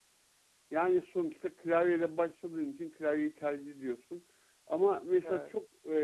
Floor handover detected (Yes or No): No